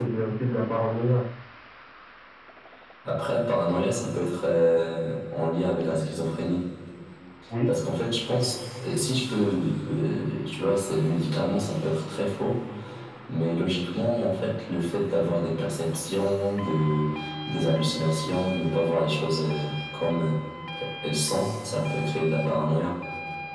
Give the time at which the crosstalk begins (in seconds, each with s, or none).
none